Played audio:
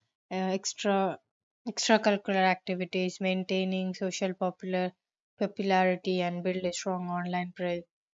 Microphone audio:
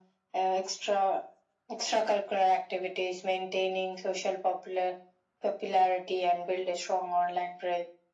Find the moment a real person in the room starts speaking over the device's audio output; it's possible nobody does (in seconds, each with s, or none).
none